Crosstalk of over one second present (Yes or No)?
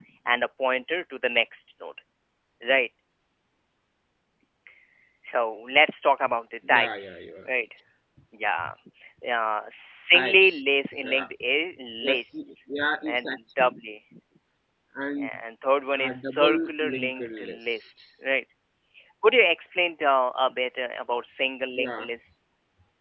Yes